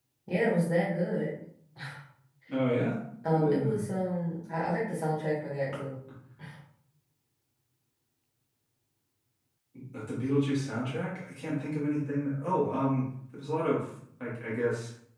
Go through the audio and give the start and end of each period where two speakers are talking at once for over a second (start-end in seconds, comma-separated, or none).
none